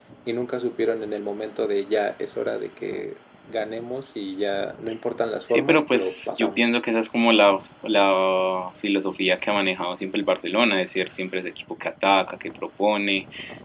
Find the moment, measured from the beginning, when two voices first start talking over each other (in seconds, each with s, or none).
5.5 s